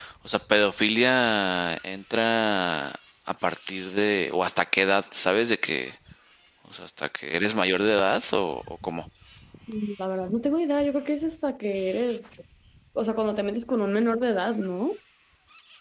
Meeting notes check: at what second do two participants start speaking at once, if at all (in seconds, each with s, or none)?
none